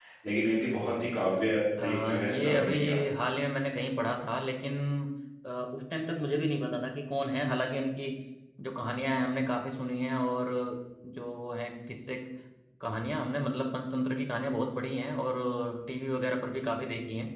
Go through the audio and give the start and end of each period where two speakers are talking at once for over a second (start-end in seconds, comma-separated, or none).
1.8-3.2